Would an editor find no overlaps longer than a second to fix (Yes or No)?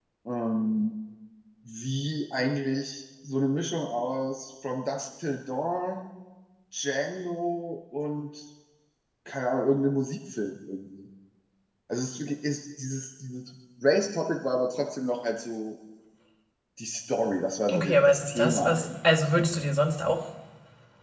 No